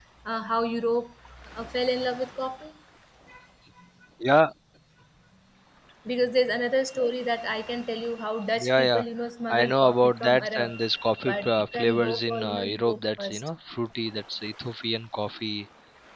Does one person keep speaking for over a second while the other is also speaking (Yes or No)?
Yes